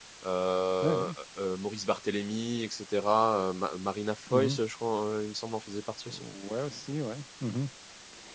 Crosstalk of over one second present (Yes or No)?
No